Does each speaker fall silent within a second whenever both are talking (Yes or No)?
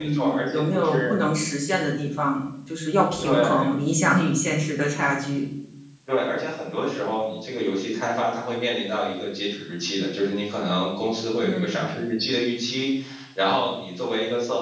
No